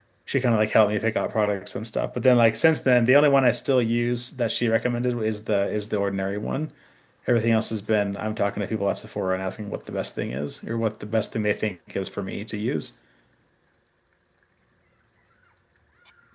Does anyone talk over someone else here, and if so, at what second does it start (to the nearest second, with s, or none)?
none